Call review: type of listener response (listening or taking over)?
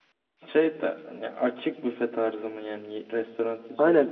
taking over